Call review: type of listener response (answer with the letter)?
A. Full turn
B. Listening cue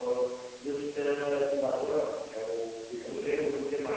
B